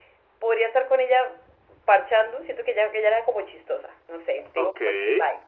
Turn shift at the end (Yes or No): No